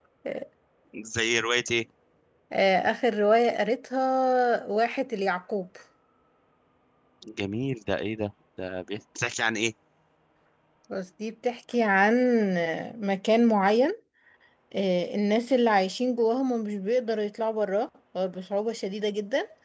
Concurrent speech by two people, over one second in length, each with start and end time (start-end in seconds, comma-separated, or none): none